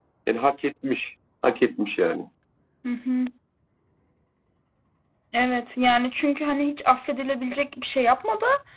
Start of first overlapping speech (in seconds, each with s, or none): none